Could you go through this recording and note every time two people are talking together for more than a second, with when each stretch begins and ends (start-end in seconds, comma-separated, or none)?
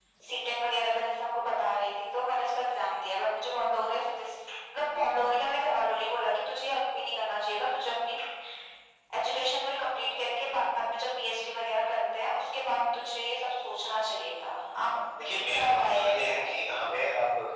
15.2-16.5